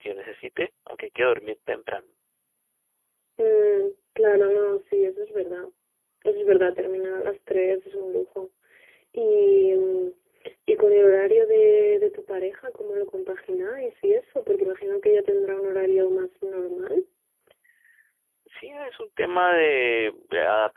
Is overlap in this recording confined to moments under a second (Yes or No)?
Yes